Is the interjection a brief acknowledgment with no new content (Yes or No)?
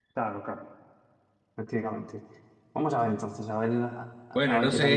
No